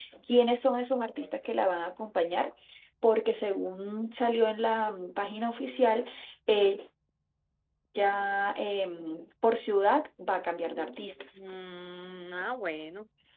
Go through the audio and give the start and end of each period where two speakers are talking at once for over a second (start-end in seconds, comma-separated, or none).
none